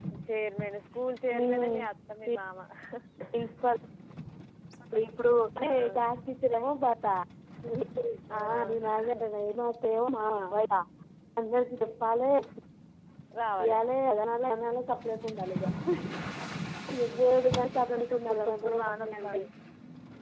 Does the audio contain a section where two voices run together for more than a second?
Yes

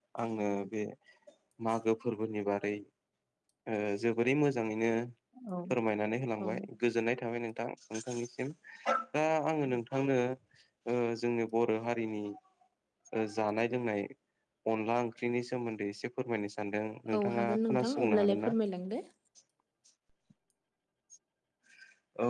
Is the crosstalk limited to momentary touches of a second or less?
No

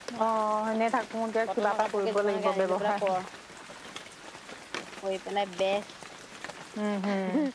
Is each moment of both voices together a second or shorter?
No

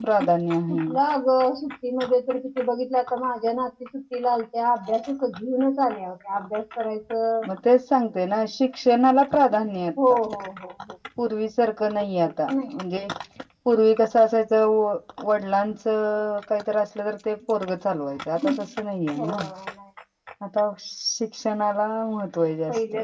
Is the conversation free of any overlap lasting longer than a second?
Yes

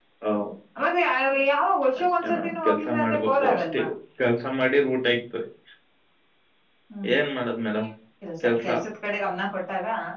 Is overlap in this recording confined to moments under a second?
No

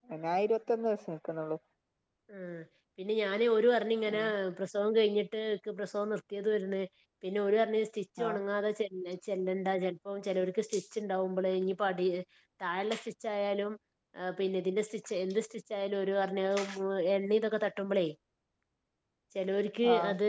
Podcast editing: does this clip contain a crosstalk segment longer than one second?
No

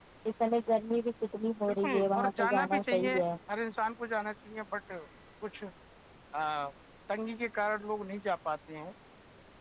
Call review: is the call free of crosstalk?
No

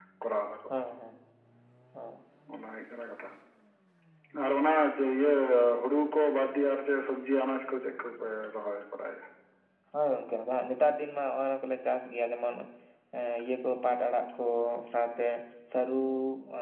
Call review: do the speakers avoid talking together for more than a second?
Yes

